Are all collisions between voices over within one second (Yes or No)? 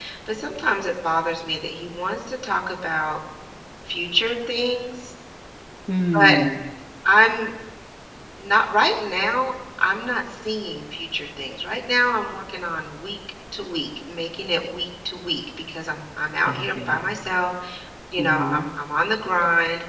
Yes